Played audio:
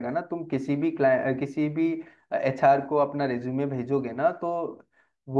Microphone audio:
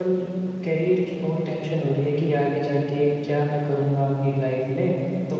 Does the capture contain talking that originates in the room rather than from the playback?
Yes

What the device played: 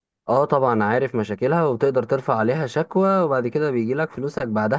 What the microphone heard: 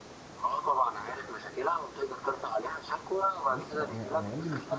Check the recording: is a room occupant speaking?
Yes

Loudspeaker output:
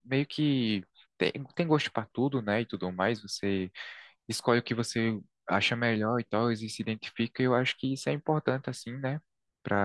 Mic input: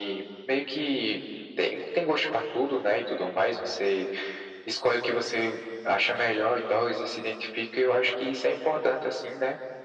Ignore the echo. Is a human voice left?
No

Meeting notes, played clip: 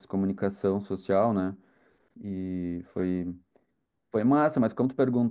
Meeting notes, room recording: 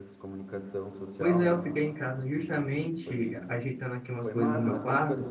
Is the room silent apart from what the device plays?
No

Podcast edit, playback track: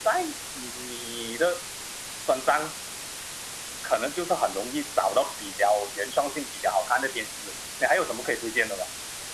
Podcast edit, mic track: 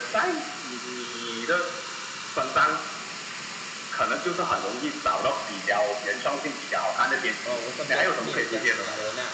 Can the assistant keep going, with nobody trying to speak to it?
No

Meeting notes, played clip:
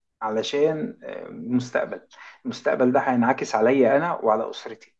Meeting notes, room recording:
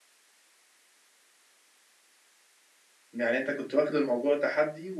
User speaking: Yes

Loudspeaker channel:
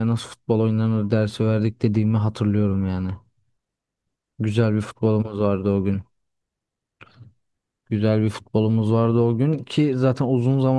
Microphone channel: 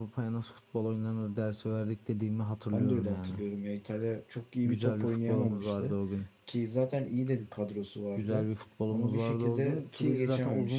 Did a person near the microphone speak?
Yes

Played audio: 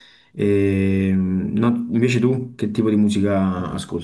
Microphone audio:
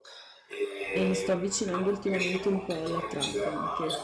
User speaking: Yes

